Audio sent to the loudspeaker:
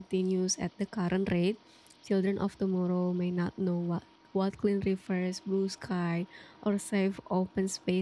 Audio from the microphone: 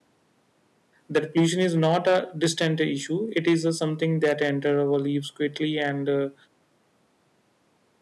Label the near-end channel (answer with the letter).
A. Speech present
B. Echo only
A